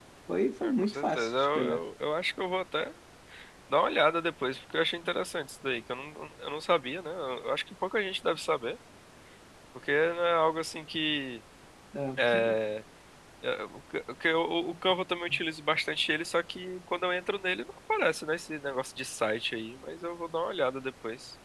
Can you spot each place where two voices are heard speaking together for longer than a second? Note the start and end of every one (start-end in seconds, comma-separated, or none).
0.6-1.8